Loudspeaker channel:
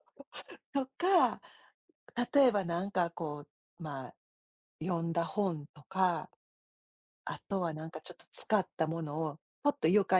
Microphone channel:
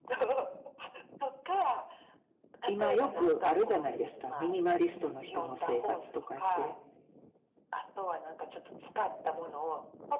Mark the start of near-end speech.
2.6 s

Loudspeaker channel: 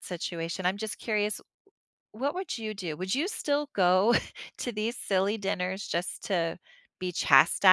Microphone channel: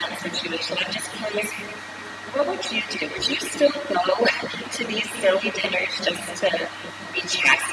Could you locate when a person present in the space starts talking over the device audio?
none

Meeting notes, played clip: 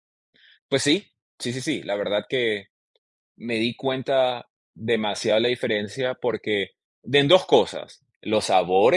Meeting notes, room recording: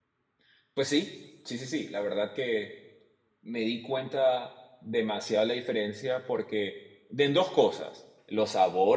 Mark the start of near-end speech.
none

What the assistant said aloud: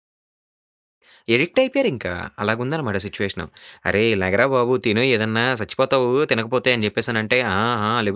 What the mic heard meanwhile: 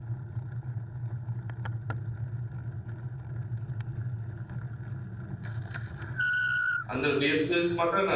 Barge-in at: 6.9 s

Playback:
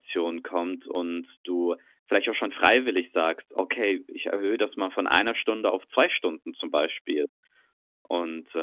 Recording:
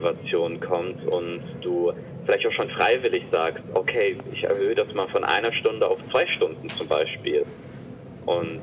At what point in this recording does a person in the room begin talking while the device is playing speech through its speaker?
none

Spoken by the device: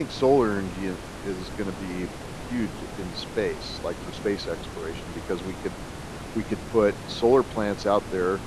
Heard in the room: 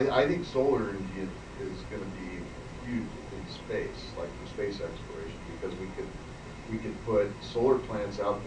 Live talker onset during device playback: none

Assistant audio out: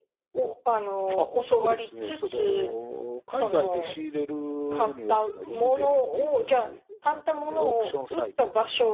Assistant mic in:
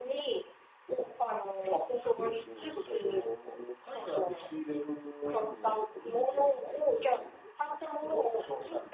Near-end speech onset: none

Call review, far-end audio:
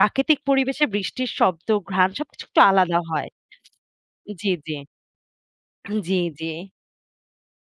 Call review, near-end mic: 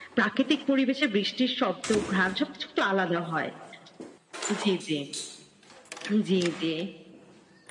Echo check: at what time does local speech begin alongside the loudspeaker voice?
none

